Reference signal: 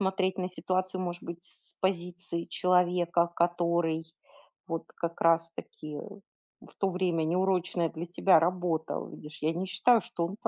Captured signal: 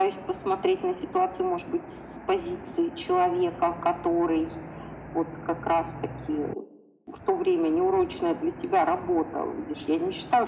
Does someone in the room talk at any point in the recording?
No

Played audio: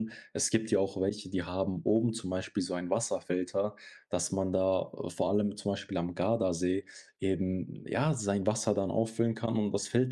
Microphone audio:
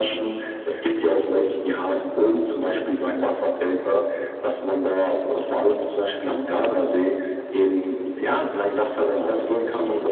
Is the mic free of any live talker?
Yes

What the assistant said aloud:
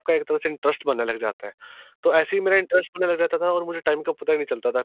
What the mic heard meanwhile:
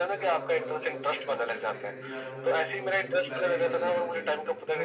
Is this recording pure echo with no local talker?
No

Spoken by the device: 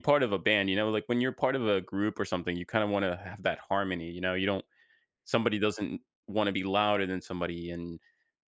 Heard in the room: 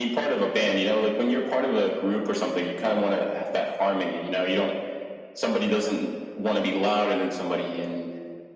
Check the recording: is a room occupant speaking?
No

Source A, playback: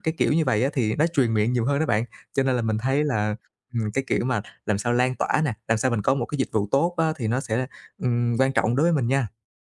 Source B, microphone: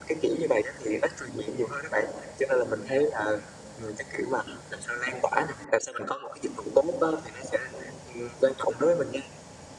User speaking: No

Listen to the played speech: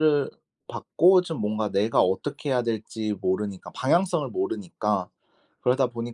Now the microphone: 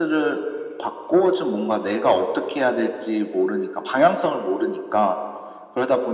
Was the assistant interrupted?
No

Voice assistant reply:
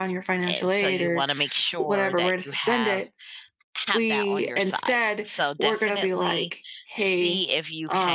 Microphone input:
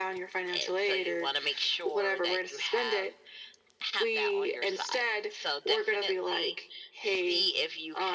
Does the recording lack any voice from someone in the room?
Yes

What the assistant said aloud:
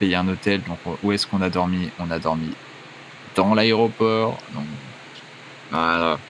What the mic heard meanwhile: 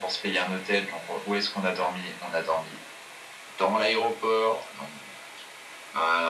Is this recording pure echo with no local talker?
Yes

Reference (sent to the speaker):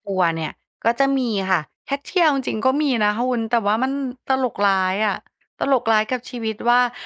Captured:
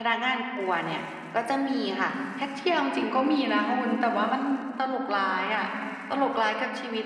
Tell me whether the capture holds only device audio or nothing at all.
Yes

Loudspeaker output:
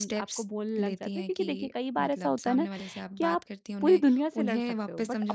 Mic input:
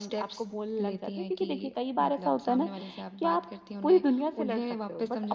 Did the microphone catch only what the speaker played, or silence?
Yes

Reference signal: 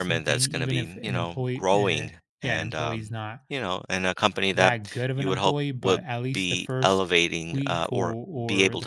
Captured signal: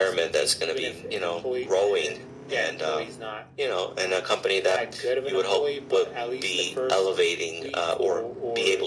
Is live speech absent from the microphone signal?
Yes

